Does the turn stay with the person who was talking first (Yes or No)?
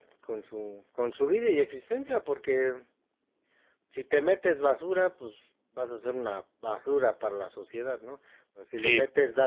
Yes